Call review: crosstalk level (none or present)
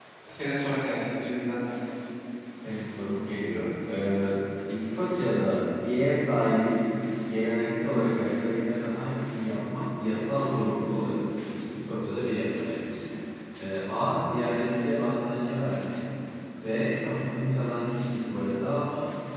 none